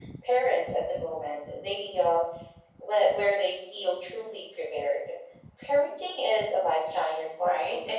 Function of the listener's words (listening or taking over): taking over